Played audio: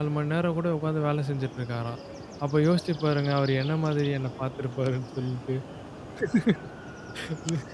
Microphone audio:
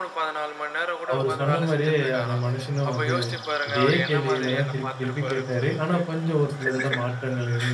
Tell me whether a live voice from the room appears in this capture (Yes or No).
Yes